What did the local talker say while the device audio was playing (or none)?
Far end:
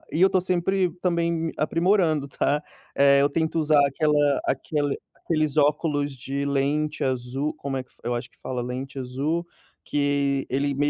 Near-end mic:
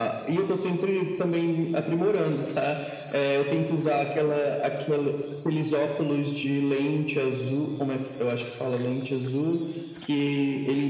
none